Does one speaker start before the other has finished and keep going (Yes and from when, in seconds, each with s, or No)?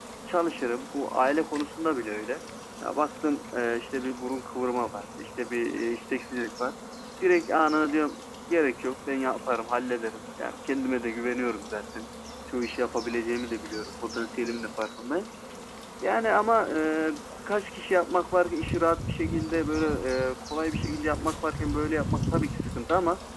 No